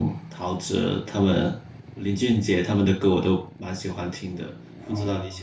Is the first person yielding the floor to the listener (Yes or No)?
Yes